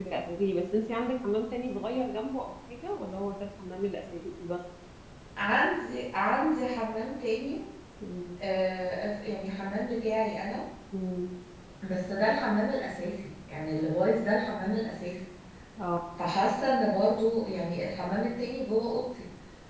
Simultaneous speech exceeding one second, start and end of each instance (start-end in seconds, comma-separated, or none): none